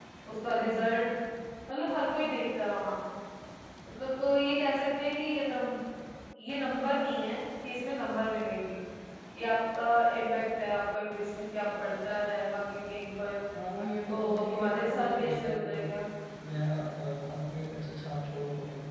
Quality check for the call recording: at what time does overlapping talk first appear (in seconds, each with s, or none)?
14.1 s